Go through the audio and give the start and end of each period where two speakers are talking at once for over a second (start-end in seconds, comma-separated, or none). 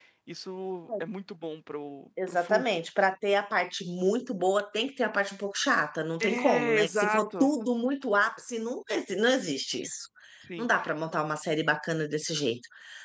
6.2-7.5